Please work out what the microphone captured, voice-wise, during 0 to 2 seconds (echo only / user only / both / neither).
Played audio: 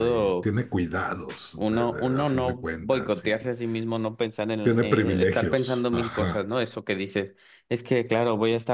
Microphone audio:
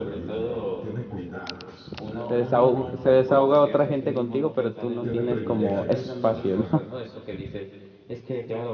echo only